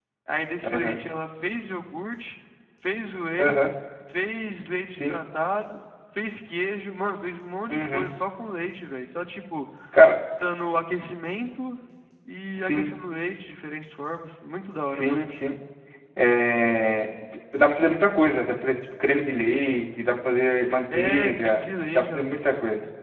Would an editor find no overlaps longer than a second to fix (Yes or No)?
No